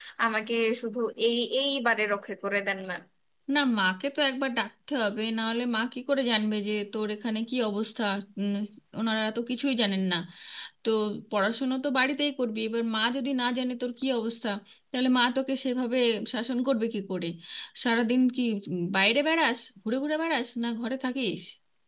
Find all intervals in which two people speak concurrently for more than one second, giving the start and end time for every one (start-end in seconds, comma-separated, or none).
none